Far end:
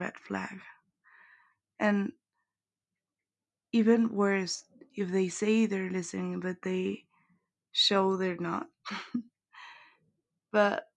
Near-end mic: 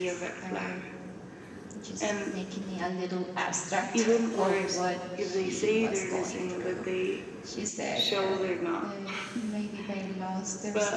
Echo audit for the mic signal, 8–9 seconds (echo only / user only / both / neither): both